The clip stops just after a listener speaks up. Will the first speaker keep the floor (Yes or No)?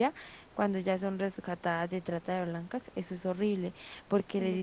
Yes